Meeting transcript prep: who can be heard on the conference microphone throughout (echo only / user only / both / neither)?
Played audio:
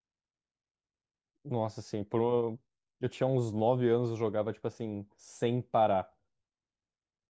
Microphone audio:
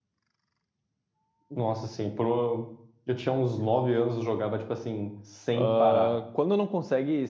both